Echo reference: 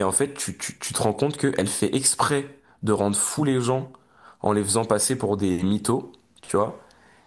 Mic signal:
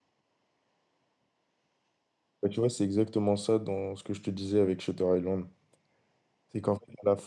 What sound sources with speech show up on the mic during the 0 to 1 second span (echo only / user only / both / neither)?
neither